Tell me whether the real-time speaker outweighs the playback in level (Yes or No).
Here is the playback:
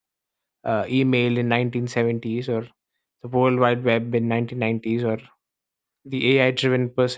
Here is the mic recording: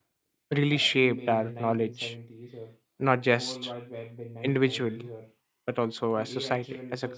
Yes